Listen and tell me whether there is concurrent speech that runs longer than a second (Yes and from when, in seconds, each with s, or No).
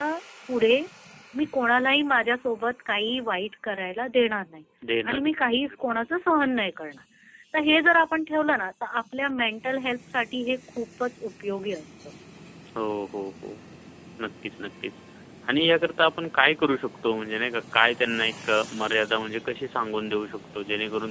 No